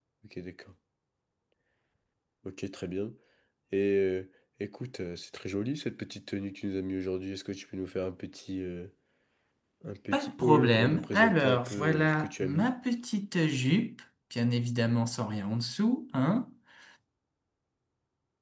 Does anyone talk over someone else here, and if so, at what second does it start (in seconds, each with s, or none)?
10.1 s